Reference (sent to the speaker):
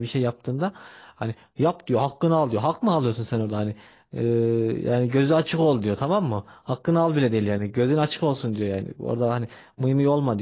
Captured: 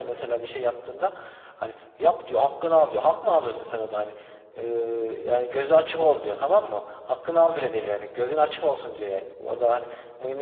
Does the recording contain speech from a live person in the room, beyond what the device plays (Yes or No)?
No